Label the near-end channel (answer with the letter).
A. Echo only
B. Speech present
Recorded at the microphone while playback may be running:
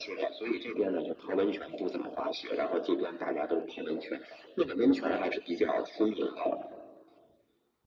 A